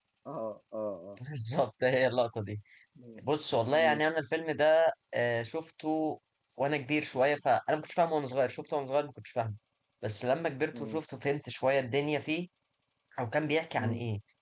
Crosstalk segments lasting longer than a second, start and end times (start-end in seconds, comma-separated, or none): none